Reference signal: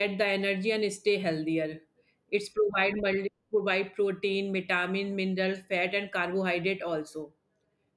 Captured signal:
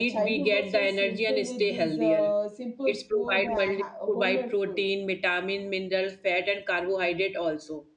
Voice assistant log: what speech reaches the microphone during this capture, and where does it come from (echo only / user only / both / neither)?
both